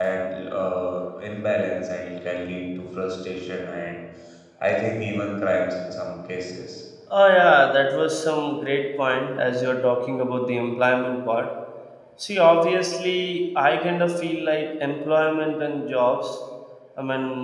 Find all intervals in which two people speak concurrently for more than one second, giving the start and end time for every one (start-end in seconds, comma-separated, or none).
none